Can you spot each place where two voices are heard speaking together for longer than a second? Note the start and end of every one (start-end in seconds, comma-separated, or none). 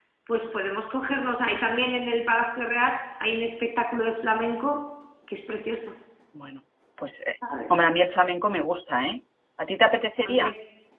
none